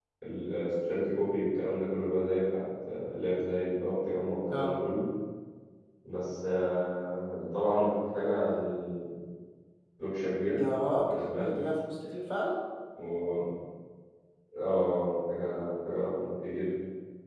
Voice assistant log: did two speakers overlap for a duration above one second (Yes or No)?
No